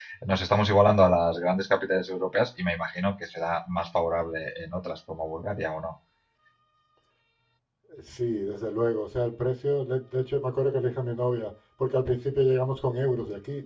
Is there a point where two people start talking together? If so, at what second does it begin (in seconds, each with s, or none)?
none